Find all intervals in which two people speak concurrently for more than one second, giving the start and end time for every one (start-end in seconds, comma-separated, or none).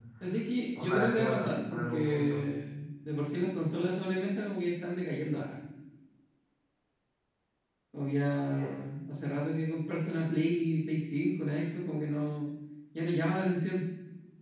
0.8-2.4